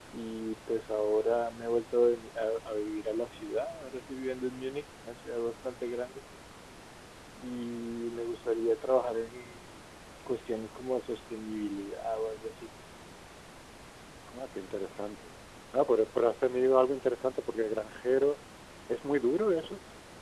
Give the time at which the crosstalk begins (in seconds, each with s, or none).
none